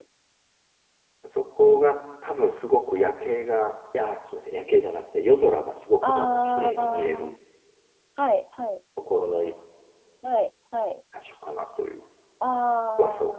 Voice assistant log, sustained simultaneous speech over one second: present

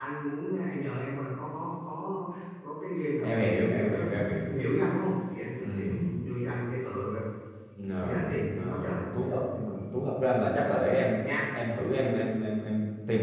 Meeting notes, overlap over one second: present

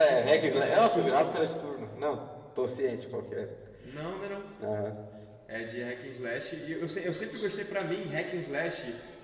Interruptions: present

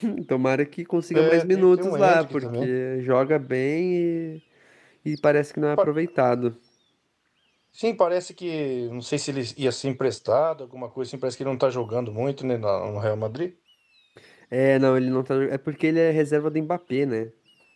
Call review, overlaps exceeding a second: present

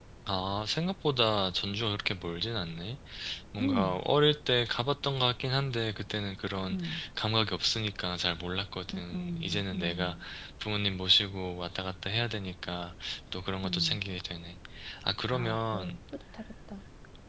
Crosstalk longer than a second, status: present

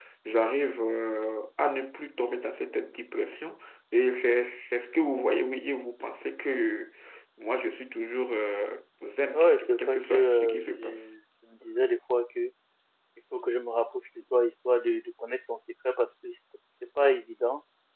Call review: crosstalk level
present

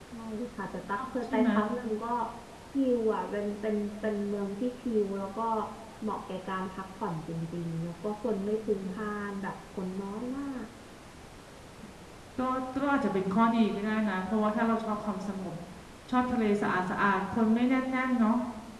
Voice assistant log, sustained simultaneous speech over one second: none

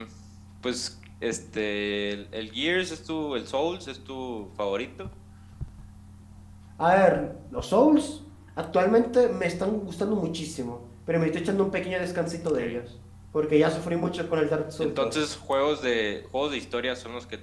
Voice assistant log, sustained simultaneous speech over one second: none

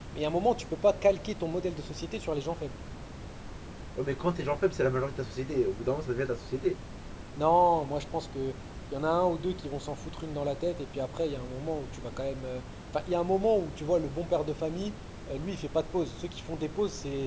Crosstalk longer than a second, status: none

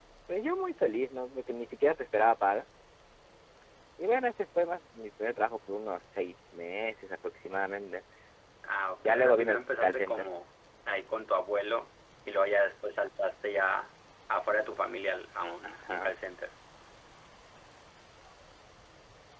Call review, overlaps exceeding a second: present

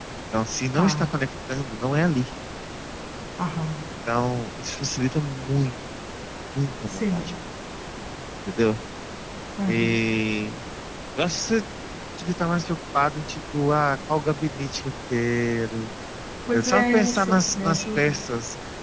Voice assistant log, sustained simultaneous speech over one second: present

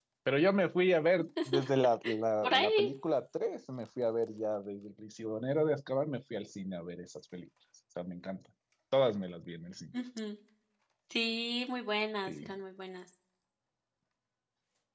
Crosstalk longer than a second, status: none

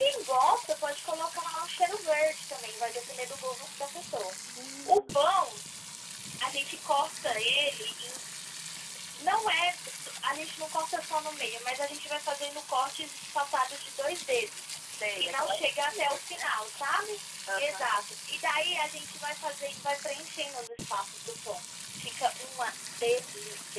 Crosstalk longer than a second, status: present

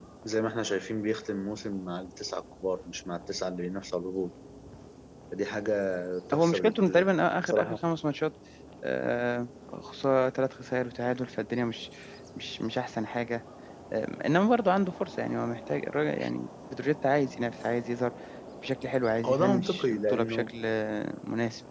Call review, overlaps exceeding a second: present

